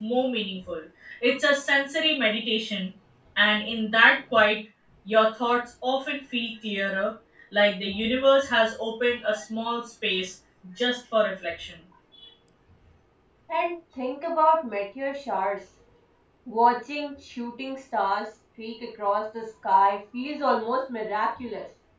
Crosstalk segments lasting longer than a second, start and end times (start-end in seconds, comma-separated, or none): none